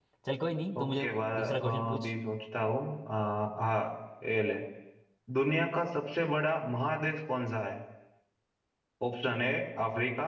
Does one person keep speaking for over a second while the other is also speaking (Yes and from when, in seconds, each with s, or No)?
Yes, from 0.8 s